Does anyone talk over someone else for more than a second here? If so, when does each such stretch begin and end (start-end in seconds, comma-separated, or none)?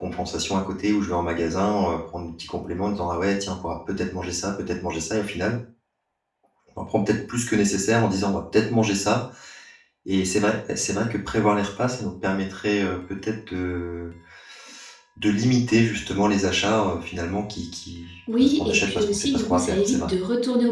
18.4-20.1